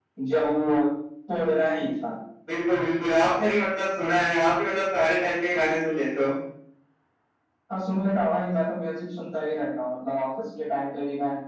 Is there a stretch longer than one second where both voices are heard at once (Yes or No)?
No